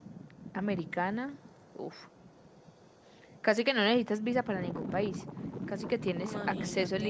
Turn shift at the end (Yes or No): No